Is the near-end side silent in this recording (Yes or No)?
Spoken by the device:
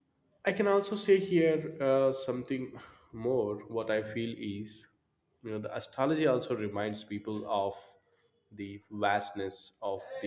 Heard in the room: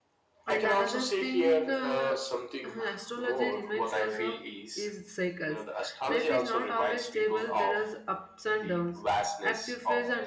No